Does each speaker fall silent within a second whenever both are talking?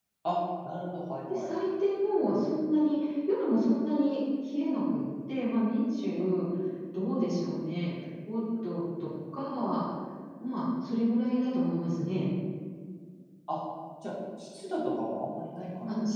Yes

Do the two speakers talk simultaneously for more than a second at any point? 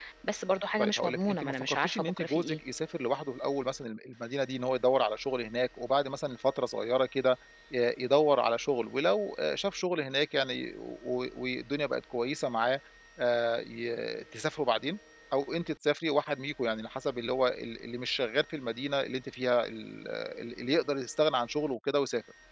Yes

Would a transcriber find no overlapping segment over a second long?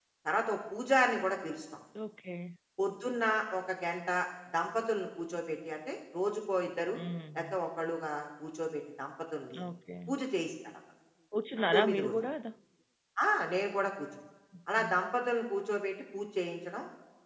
Yes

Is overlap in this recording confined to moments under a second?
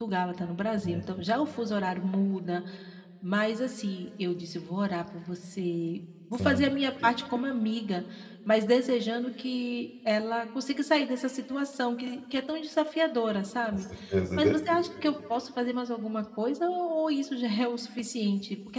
Yes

